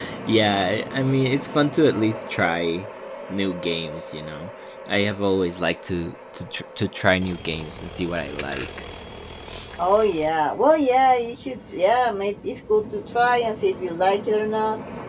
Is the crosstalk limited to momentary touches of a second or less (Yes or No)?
Yes